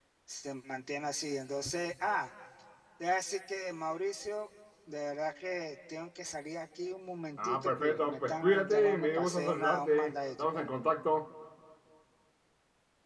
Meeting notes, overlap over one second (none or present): present